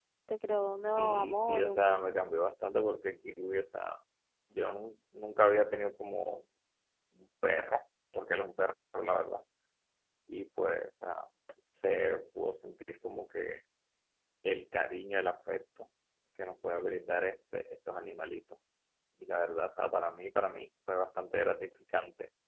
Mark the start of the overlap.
1 s

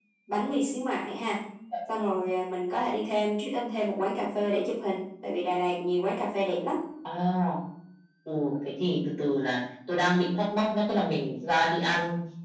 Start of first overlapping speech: none

